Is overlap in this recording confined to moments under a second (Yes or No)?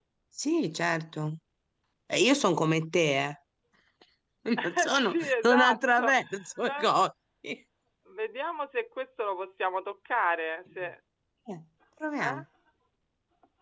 No